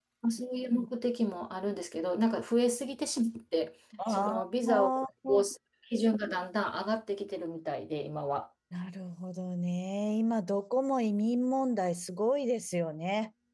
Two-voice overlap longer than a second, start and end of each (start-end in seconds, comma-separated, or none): none